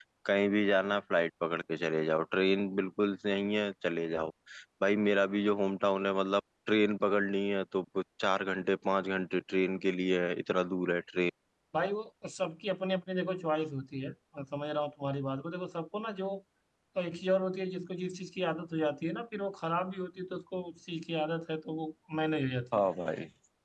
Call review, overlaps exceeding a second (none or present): none